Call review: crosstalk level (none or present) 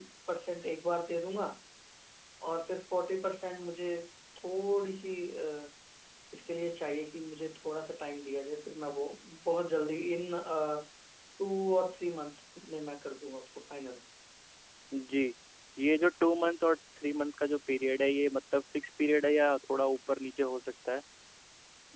none